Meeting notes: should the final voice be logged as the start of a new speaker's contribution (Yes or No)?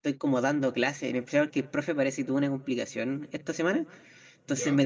No